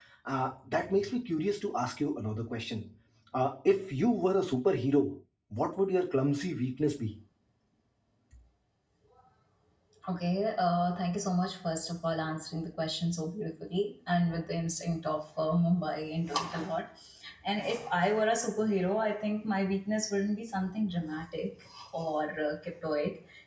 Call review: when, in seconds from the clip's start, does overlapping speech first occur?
none

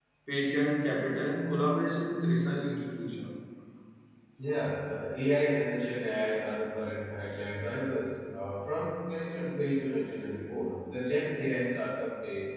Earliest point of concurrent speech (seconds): none

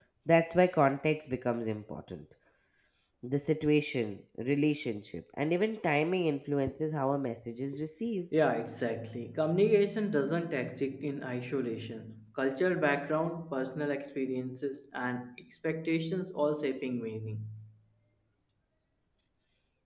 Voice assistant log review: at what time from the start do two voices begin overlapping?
none

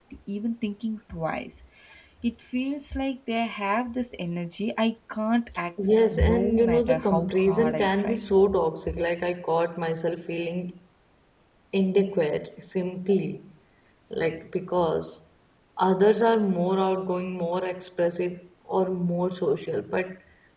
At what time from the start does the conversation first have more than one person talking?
5.8 s

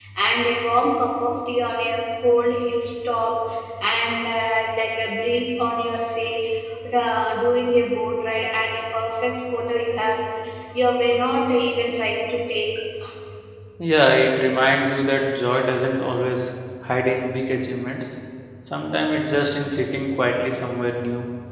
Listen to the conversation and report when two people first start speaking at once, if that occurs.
none

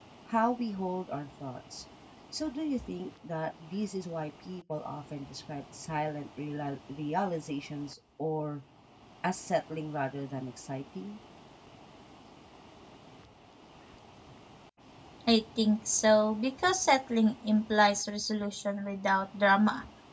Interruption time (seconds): none

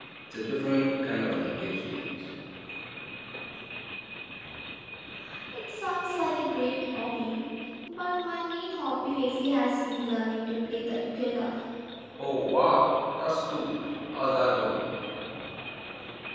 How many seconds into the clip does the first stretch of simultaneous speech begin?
none

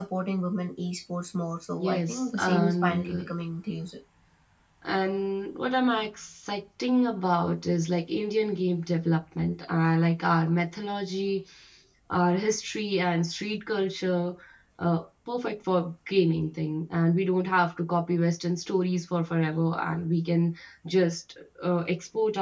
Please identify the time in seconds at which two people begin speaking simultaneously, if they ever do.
1.8 s

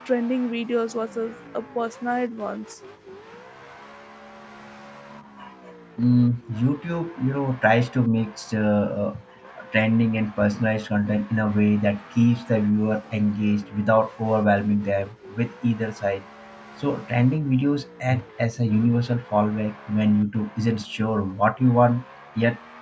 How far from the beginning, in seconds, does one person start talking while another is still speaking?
none

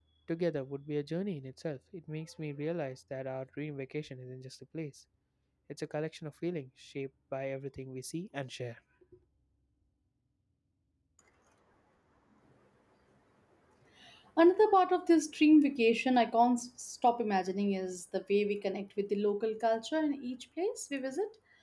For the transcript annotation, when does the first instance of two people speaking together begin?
none

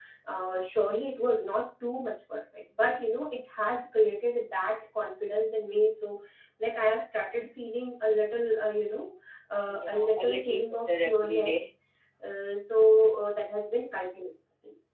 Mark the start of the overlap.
9.7 s

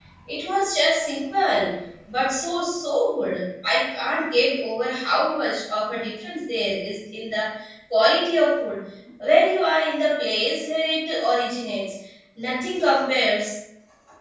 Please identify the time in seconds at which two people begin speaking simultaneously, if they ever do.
none

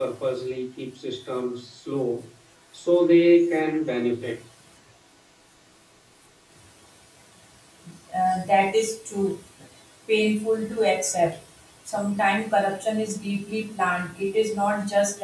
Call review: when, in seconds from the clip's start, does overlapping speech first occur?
none

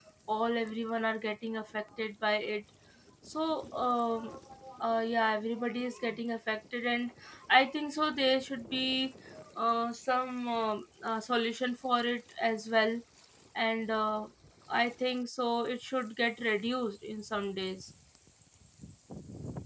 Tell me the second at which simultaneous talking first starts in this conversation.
none

